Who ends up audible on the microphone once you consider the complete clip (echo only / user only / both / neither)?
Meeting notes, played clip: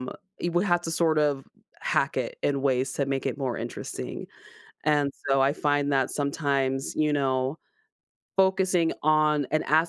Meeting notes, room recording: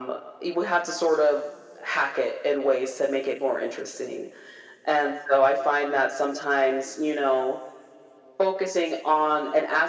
echo only